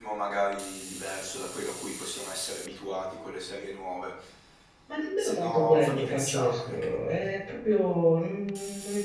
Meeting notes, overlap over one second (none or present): present